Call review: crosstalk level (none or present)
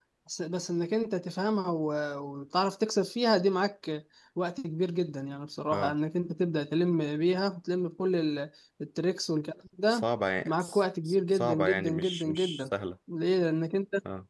present